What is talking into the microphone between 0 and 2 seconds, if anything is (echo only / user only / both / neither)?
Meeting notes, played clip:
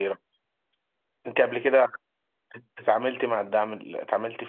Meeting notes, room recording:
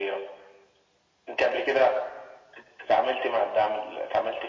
echo only